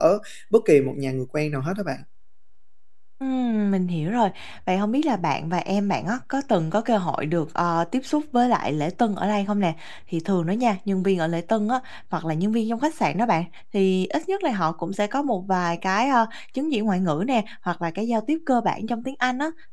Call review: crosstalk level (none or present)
none